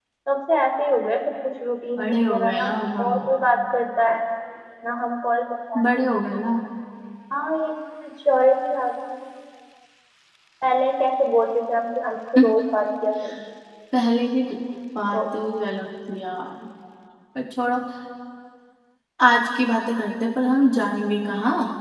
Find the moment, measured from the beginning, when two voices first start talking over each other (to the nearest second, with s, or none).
2 s